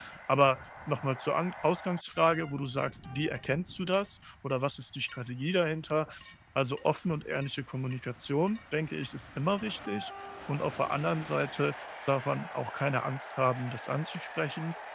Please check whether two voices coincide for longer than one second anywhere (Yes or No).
No